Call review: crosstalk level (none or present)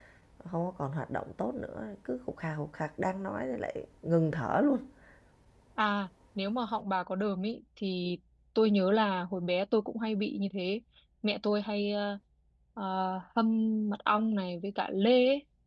none